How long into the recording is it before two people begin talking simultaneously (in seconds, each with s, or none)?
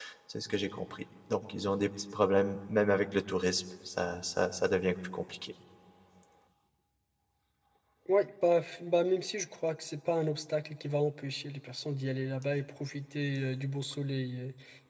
none